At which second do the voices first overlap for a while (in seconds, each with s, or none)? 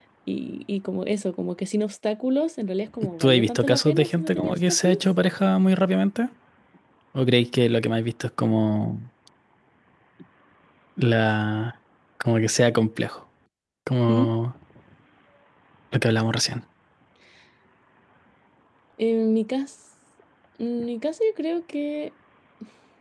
3.2 s